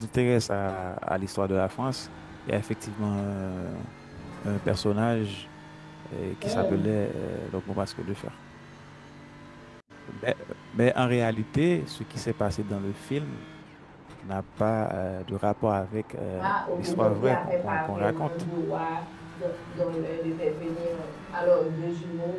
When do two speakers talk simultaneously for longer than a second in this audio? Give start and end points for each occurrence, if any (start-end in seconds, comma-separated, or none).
16.4-18.5